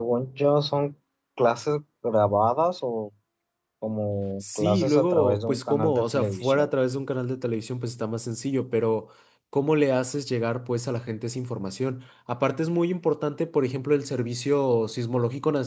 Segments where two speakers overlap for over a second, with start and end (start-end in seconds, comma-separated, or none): 4.4-6.7